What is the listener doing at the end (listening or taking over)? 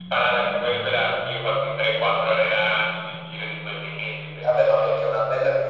taking over